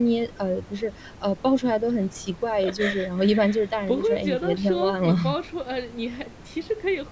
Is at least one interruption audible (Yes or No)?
Yes